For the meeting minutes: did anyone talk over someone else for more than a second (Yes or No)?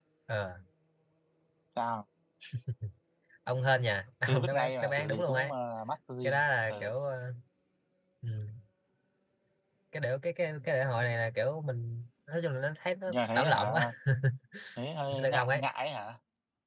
Yes